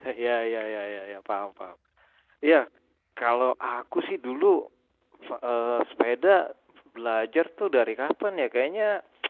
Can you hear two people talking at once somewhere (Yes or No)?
No